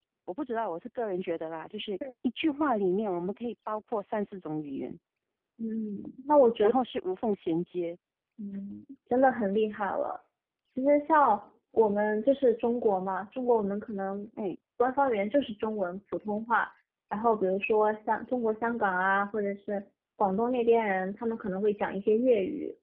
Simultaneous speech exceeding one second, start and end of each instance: none

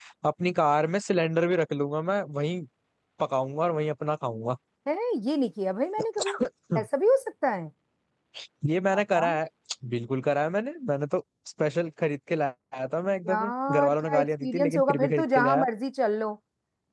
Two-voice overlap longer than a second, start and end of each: 13.3-15.7

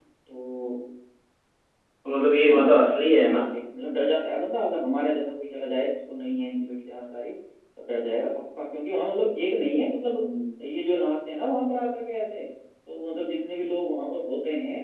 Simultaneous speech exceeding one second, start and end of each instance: none

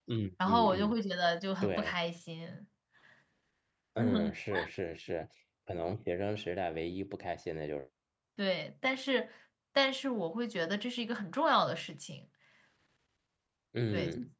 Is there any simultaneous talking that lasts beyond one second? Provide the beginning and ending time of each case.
none

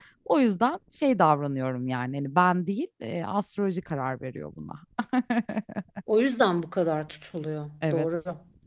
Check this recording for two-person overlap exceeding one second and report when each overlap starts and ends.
none

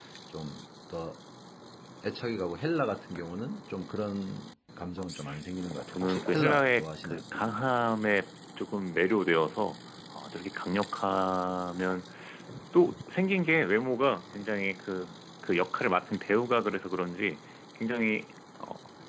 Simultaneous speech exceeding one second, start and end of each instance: 5.7-7.2

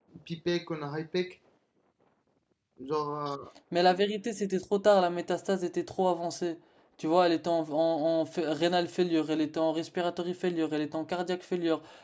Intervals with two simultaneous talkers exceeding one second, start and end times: none

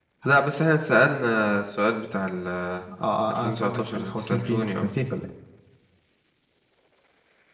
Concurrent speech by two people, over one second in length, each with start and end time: 3.3-4.8

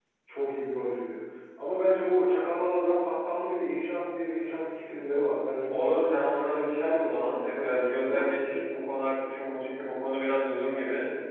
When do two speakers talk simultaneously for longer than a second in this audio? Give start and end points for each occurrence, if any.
5.7-8.4

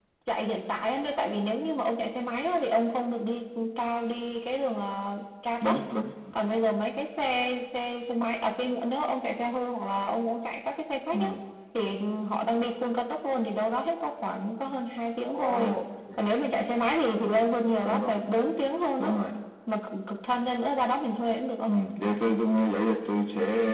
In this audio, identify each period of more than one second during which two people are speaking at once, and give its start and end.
none

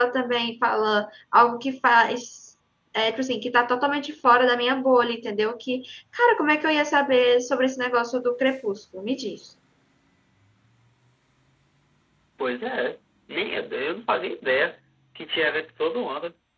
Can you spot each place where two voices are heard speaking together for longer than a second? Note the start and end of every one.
none

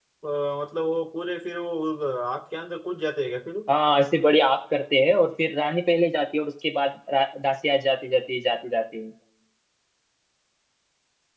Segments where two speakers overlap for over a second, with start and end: none

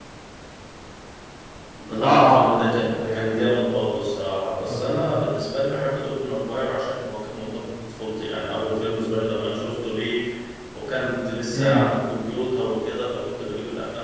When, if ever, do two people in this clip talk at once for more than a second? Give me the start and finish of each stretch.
2.0-3.5

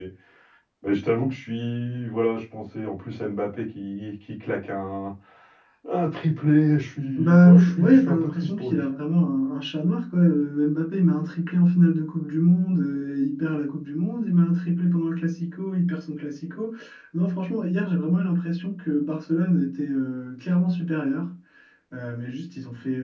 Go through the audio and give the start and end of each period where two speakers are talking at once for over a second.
7.2-8.8

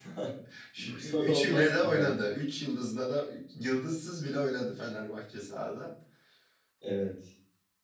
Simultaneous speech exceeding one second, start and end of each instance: 0.8-2.1

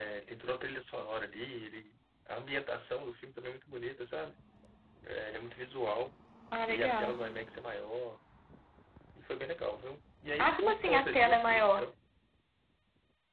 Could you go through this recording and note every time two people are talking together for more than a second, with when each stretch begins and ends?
10.4-11.9

